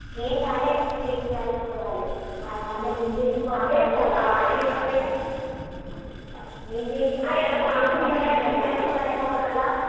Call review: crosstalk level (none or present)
present